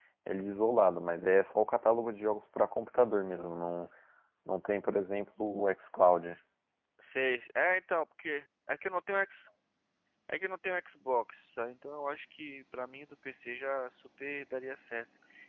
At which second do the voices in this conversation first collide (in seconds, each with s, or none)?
none